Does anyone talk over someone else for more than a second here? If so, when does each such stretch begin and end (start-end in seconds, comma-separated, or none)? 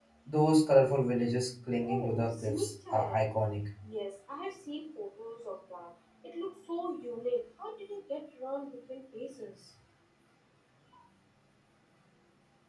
1.8-3.3